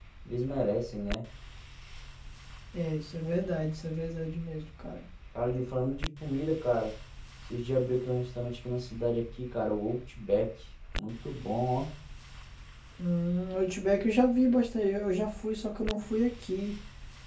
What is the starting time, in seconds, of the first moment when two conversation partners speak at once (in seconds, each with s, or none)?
none